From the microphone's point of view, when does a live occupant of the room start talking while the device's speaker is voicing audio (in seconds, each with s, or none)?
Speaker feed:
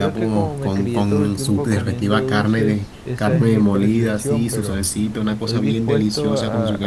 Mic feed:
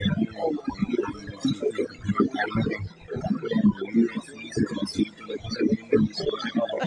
none